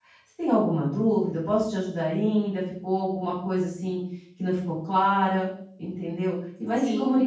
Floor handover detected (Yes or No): No